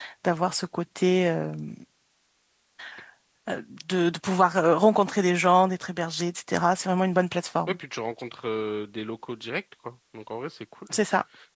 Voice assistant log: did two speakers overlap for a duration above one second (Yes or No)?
No